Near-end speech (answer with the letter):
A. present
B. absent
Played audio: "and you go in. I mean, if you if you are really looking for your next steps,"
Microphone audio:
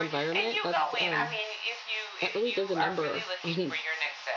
A